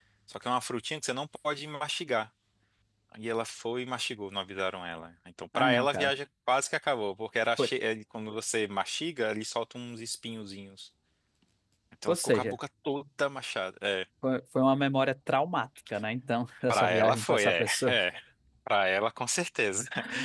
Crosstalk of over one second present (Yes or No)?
Yes